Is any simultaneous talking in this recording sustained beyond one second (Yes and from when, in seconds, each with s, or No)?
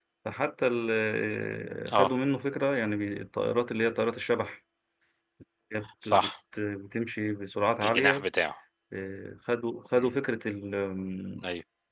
No